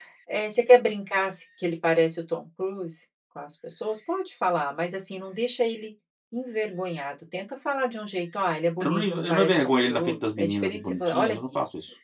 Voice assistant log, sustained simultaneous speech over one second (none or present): present